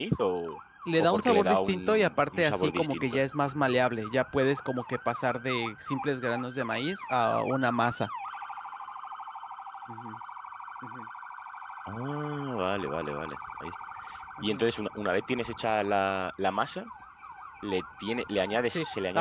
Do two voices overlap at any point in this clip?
Yes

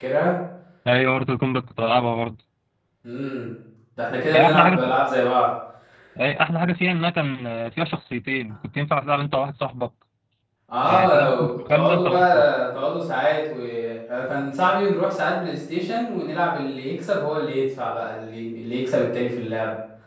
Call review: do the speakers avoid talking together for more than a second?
No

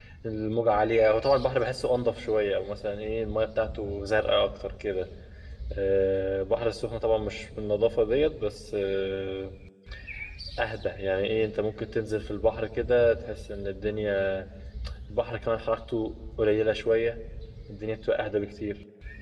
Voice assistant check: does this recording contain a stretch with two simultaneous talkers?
No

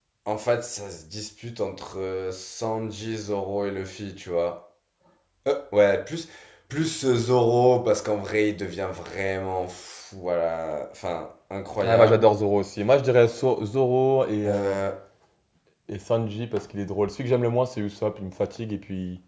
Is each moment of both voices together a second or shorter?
Yes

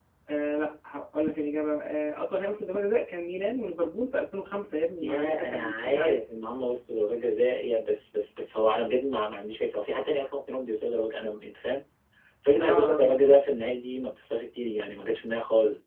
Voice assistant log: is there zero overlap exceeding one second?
No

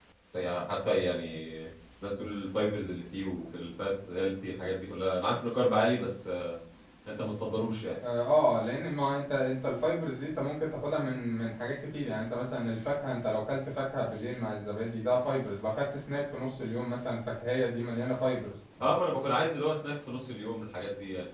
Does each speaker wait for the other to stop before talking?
Yes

